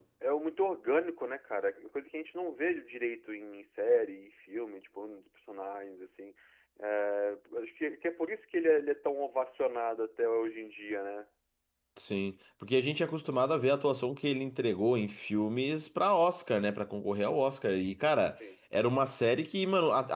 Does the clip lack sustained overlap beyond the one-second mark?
Yes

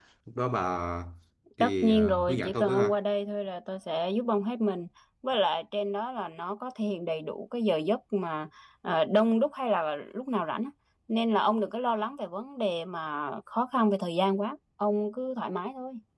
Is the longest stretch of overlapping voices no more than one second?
No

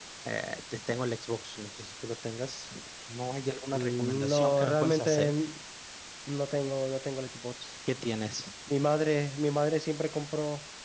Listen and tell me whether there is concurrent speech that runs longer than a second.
Yes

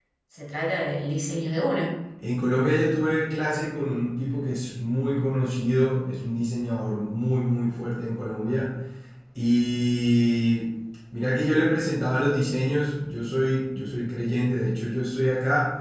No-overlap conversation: Yes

